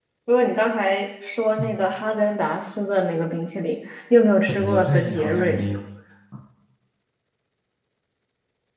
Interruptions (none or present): present